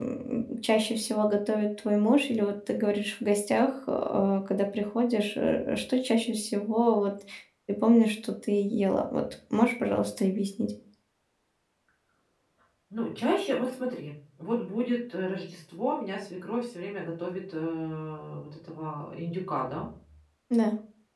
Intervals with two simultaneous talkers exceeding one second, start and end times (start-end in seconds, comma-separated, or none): none